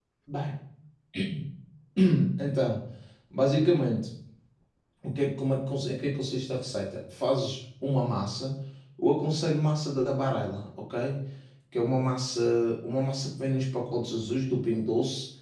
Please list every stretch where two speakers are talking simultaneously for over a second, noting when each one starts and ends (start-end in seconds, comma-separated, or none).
none